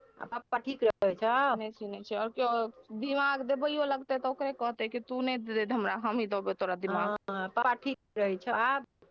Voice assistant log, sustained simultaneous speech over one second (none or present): none